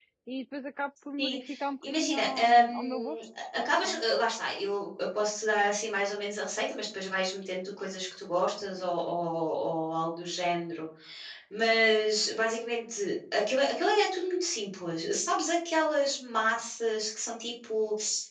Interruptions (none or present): present